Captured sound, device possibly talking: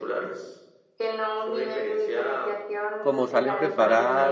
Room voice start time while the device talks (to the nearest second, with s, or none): 3 s